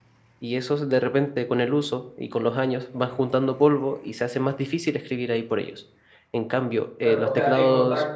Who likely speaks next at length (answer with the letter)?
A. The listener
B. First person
A